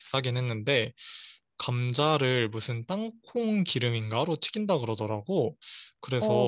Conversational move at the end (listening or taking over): listening